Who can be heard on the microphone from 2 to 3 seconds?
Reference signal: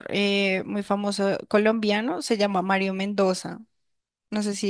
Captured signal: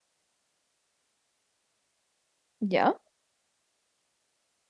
user only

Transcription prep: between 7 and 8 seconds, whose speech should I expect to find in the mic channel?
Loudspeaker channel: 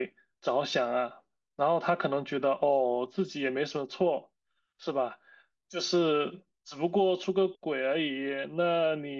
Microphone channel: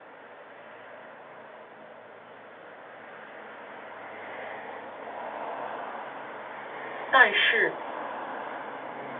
user only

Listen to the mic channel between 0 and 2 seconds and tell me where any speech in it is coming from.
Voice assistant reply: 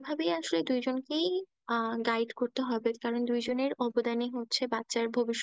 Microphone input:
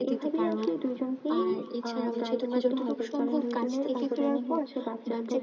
both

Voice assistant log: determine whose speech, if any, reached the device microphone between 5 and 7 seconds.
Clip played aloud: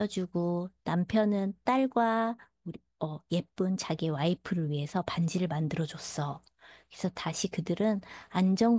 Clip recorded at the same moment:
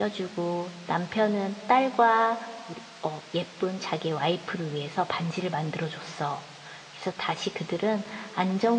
echo only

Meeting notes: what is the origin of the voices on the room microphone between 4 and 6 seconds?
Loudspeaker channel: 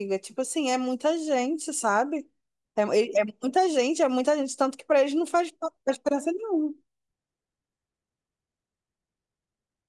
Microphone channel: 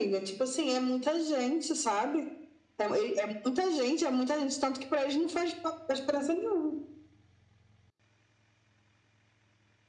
echo only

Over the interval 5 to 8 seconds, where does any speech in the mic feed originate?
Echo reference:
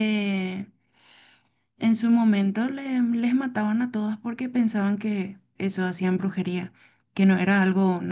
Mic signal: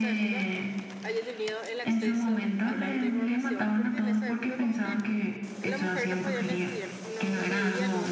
both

